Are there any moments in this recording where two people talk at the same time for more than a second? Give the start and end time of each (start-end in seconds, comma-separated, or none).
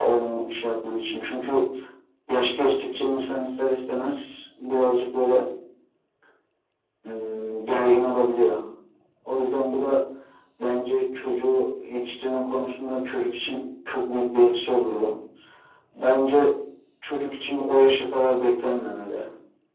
none